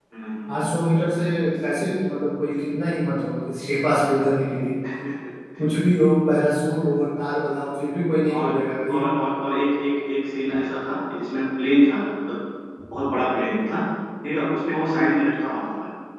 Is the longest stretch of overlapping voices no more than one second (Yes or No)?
Yes